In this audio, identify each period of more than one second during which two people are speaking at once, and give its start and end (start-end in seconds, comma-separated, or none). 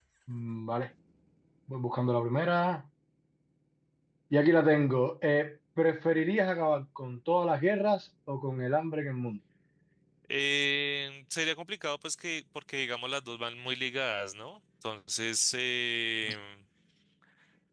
none